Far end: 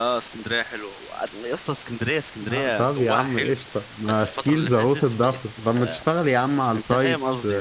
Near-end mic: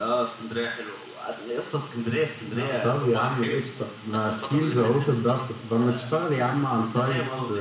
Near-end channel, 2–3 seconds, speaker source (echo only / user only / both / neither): echo only